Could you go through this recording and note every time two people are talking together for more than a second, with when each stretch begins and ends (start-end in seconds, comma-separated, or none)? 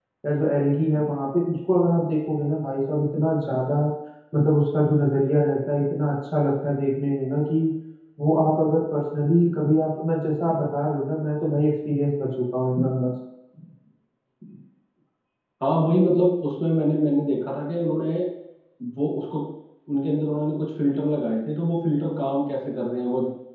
none